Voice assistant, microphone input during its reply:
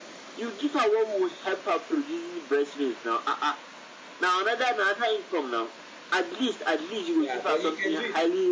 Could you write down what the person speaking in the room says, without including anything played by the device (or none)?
Yeah, but you can do it.